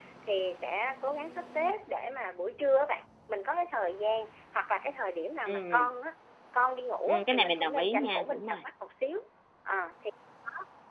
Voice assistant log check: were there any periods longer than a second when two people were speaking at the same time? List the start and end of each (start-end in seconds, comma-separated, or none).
7.1-8.6